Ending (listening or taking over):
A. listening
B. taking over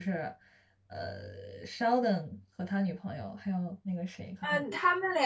B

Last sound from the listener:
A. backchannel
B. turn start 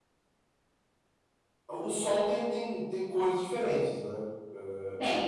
A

